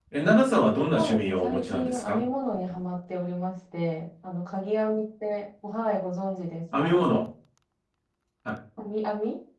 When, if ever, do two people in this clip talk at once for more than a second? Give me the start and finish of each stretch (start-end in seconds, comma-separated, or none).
1.0-2.2